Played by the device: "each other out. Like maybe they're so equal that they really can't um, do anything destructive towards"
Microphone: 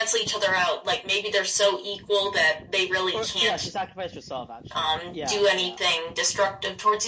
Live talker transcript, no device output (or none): Or yeah, she sacrificed herself actually. Yeah, yeah,